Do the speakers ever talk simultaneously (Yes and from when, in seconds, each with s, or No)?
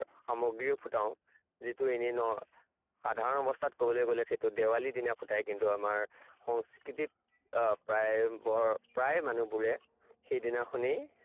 No